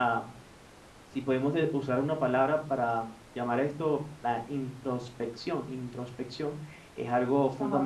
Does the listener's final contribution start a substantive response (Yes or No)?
No